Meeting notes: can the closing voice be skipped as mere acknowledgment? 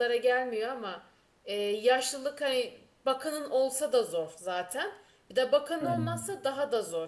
Yes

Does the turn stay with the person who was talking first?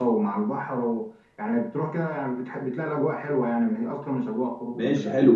No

